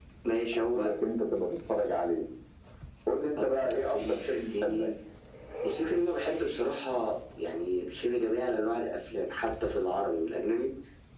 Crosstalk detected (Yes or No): Yes